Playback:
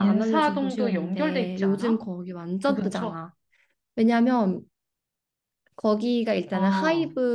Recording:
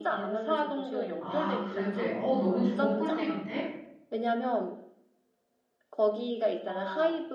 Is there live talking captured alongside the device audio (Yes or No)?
Yes